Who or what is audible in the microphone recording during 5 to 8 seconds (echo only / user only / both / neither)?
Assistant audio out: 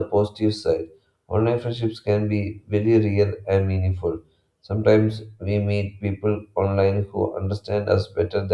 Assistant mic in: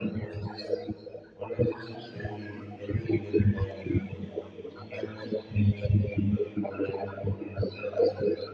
echo only